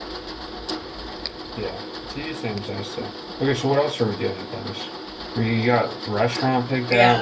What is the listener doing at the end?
taking over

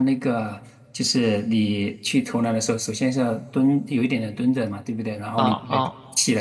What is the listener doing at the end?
listening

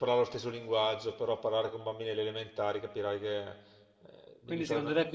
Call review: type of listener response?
taking over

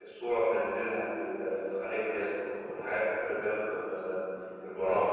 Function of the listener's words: listening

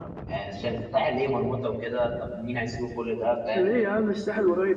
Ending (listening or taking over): taking over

